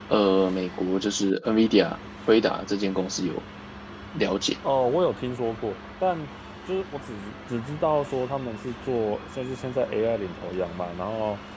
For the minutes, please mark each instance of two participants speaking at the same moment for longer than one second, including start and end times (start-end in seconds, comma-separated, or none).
none